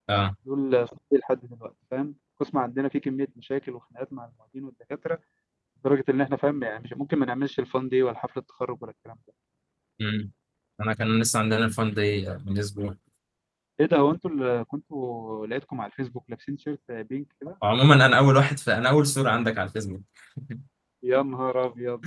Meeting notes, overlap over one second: none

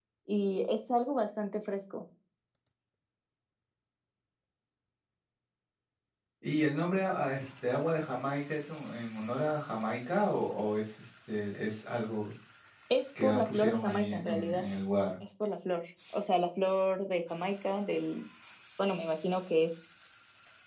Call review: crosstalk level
present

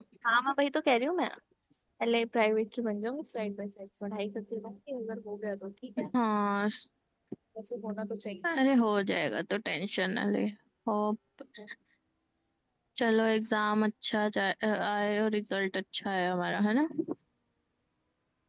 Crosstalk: none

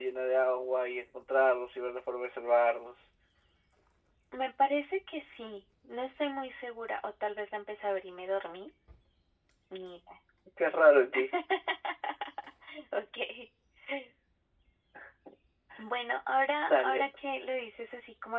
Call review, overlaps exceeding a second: none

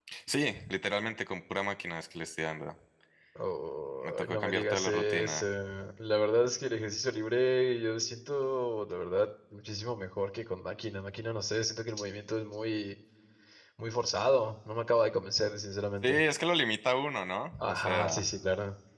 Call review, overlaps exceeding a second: present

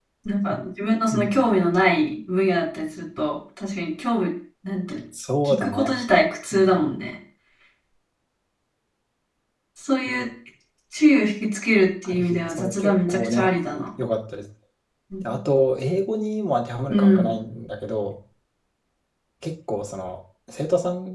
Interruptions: present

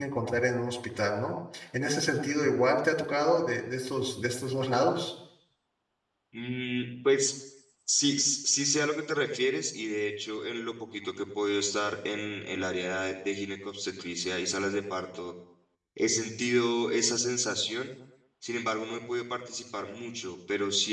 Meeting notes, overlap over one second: none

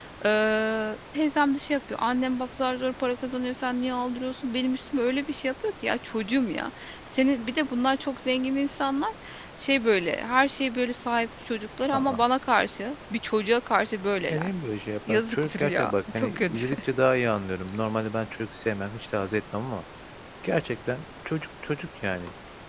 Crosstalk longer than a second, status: present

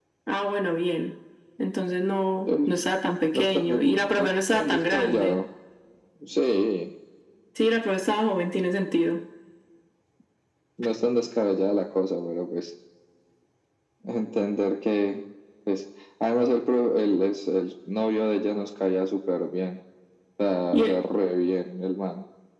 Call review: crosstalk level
present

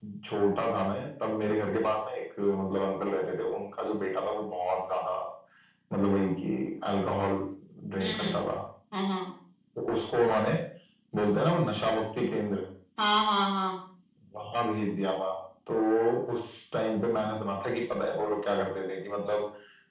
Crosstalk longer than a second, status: none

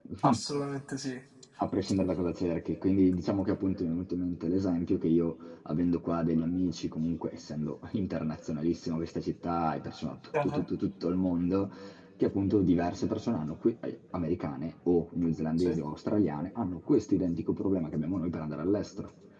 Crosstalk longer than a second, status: none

